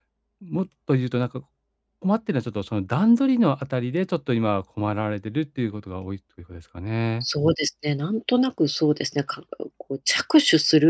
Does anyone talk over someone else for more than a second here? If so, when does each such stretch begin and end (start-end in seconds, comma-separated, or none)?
none